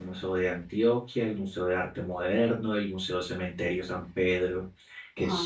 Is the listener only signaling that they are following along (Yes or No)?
Yes